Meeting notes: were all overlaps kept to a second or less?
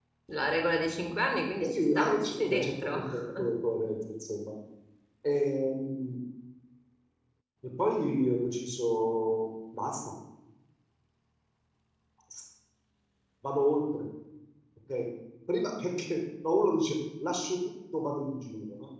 No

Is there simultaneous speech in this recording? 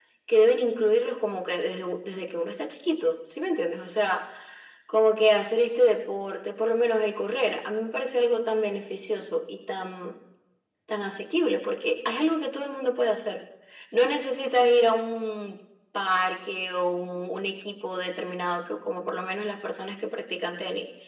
No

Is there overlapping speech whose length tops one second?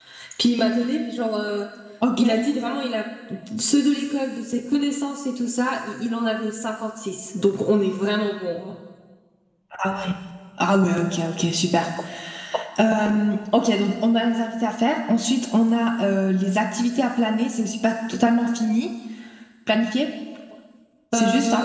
No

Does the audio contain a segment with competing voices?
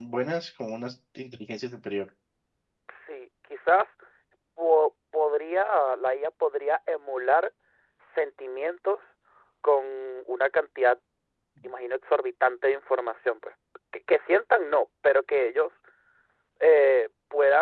No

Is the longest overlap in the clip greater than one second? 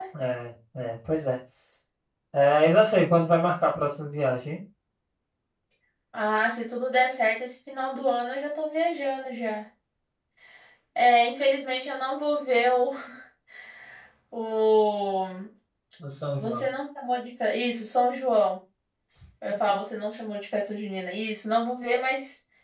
No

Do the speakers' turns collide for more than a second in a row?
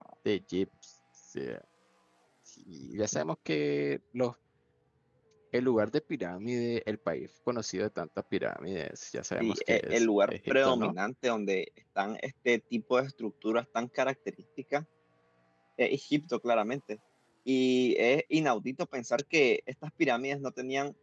Yes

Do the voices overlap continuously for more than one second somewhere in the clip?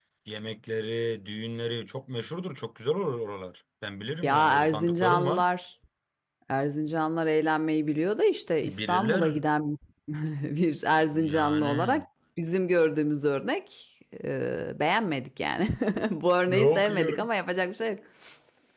Yes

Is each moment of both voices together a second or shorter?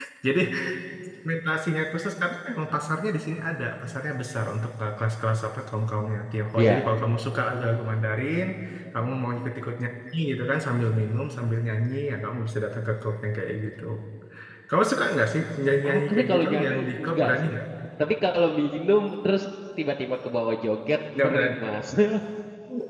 No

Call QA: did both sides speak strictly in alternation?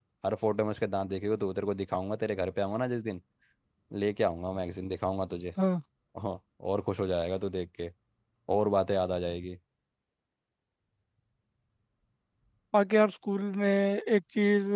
Yes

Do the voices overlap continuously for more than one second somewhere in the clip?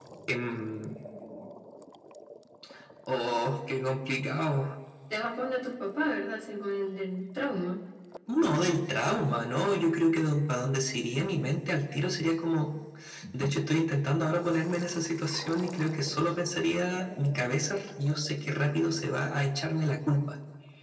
No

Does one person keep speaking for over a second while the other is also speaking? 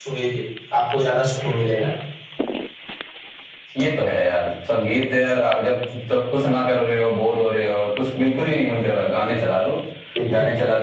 No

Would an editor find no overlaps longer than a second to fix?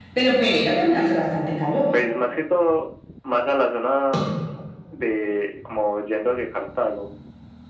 Yes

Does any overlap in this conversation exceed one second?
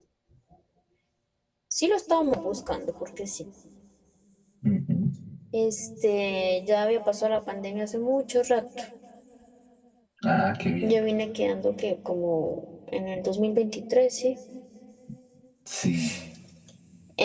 No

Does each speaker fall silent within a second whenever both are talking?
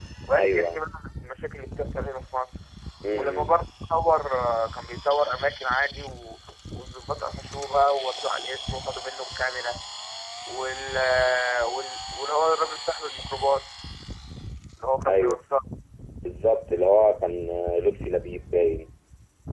Yes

